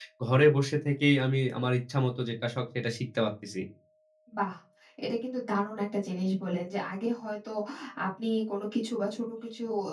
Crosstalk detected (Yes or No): No